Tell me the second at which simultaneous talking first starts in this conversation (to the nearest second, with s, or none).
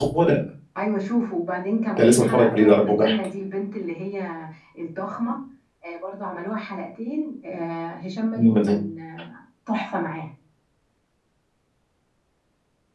2 s